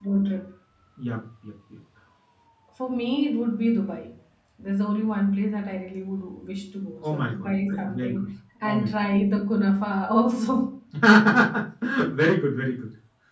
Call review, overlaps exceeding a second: present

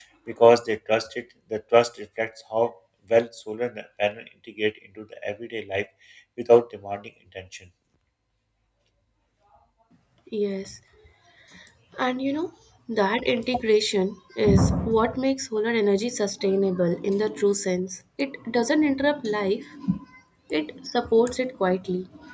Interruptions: none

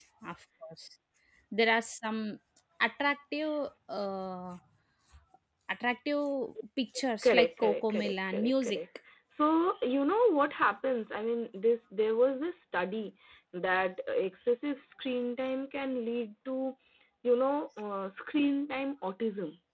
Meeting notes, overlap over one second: present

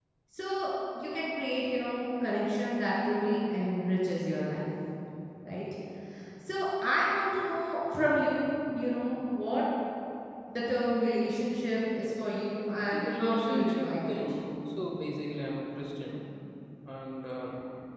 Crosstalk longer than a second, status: present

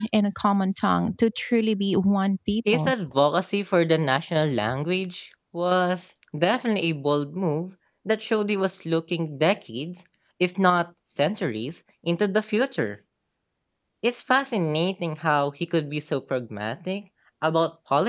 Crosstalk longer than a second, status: none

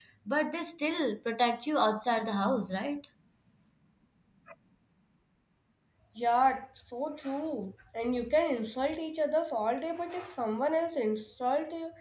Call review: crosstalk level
none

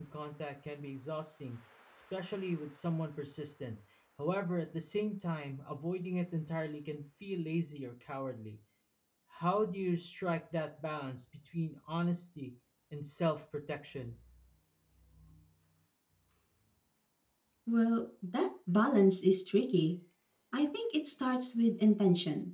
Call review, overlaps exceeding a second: none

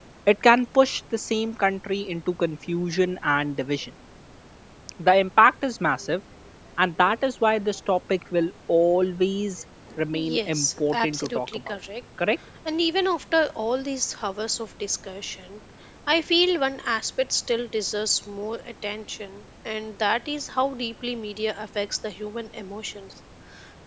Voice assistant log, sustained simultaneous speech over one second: present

